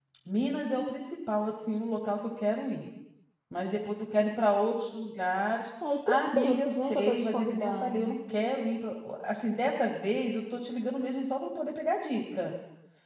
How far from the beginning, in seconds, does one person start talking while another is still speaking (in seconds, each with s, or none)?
5.8 s